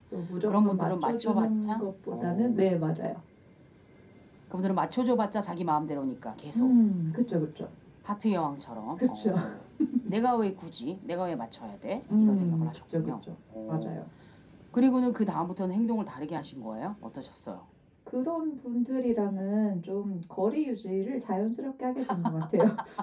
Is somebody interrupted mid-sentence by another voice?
Yes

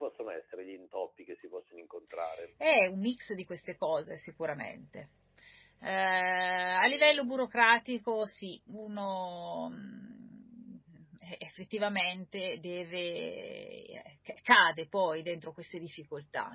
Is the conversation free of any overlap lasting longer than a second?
Yes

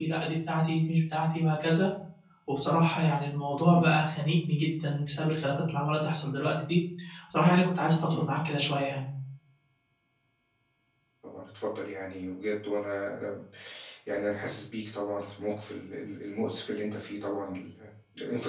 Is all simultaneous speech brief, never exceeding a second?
Yes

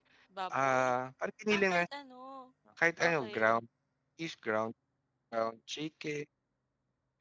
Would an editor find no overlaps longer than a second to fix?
Yes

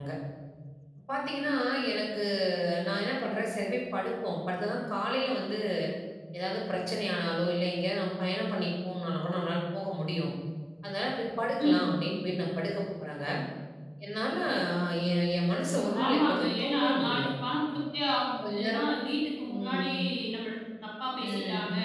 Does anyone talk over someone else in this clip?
Yes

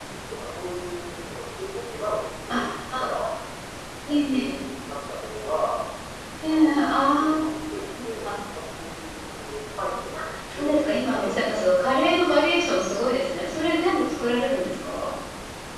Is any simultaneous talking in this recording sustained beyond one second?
Yes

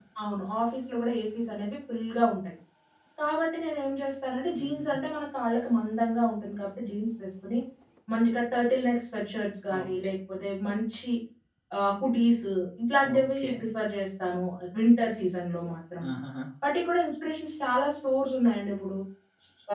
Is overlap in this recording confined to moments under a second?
Yes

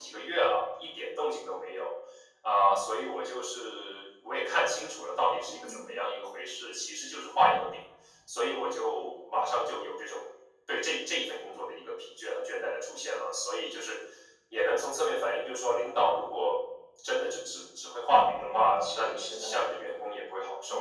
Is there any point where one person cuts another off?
Yes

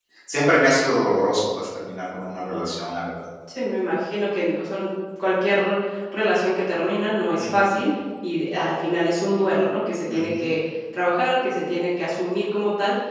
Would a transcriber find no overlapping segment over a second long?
Yes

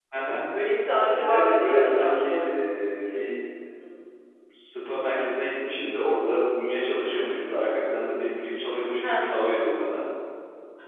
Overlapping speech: Yes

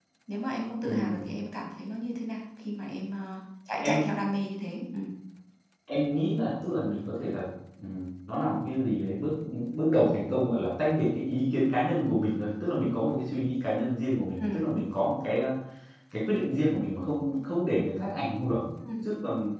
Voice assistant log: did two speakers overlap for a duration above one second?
No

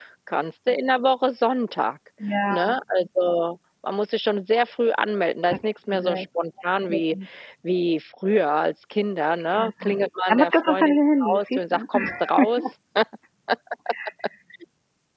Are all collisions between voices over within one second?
No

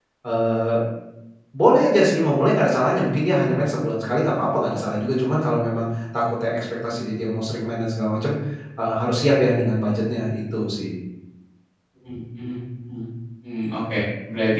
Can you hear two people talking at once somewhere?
No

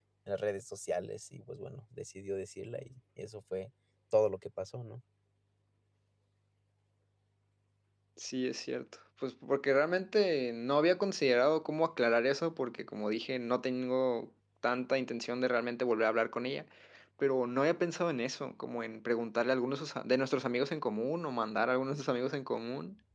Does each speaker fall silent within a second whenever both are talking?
Yes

